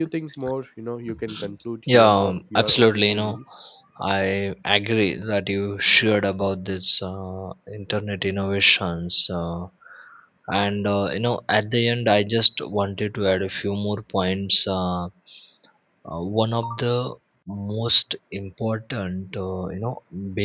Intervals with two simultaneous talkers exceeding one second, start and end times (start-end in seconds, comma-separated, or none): 1.9-3.4